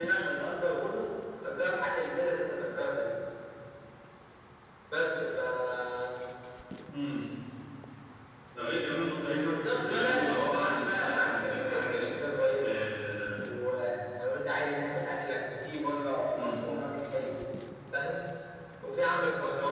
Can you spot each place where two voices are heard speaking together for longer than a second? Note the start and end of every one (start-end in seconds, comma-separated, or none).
9.5-12.1